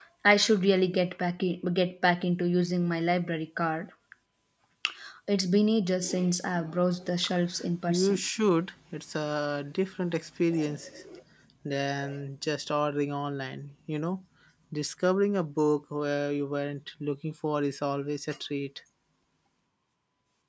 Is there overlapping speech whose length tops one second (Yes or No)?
No